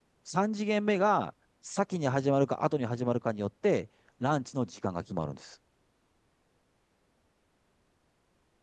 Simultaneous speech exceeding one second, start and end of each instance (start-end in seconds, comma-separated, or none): none